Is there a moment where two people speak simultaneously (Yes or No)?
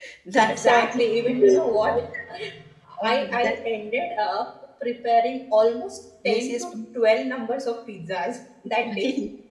Yes